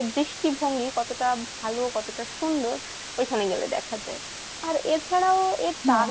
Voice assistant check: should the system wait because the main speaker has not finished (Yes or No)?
Yes